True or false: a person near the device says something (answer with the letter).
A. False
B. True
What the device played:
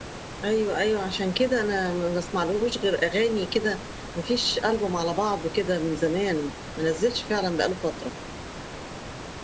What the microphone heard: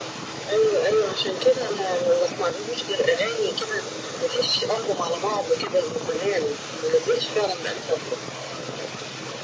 A